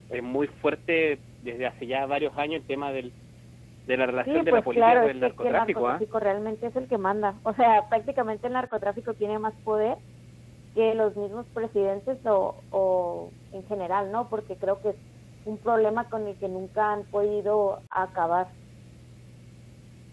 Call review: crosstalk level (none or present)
present